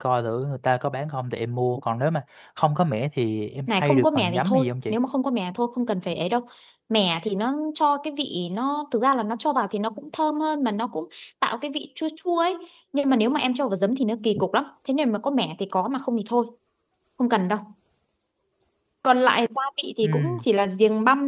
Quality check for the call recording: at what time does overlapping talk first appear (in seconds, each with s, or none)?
3.7 s